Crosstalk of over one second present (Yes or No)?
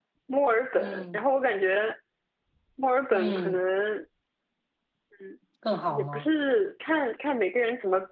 No